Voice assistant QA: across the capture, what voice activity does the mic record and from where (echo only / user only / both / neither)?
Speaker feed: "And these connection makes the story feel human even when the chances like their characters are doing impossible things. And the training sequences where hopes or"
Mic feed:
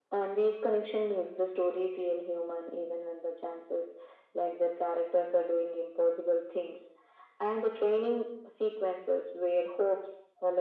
echo only